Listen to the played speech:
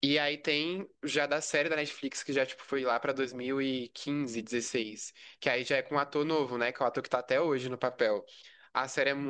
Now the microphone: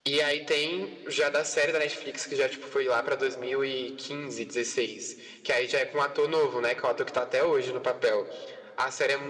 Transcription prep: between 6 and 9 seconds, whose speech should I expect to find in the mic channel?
echo only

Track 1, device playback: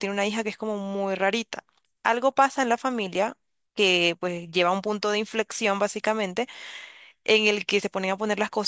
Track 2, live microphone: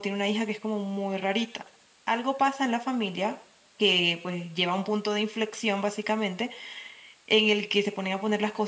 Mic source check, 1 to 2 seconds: echo only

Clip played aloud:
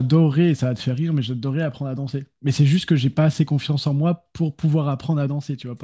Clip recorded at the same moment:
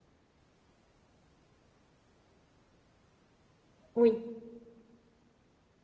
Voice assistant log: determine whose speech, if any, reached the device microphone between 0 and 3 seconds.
neither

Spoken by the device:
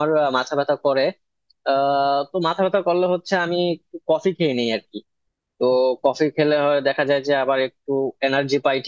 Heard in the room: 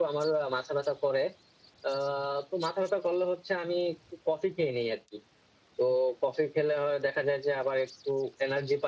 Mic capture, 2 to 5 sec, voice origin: echo only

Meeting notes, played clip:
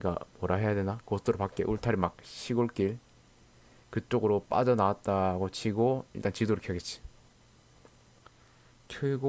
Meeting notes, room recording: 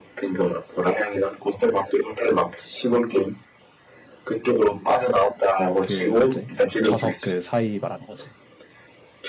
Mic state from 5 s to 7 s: both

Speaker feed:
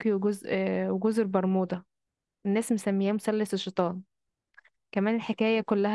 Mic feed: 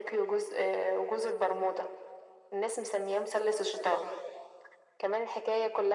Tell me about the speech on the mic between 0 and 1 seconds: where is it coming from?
echo only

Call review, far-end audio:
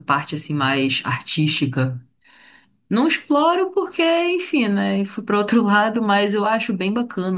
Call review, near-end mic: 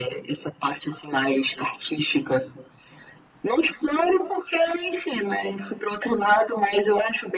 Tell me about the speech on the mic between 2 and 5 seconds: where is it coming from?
echo only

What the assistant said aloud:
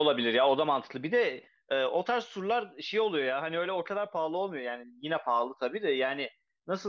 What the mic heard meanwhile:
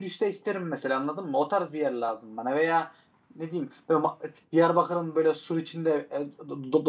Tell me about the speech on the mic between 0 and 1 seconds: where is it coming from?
user only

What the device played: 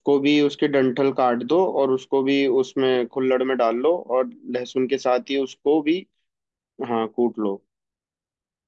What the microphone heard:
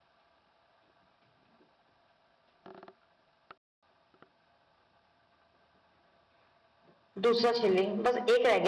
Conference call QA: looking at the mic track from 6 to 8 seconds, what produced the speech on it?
user only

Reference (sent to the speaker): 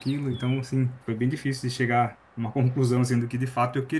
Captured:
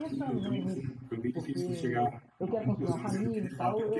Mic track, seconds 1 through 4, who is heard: both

